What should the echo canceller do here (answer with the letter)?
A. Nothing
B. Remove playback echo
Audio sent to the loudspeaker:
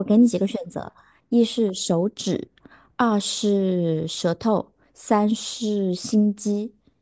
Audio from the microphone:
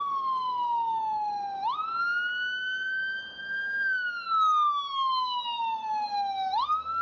A